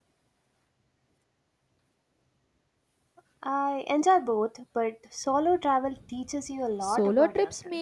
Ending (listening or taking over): taking over